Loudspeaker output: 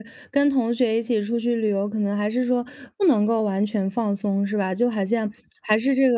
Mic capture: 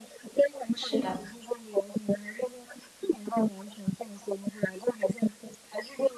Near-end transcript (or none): 是的。